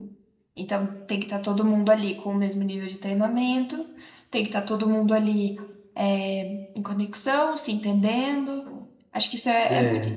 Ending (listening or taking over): listening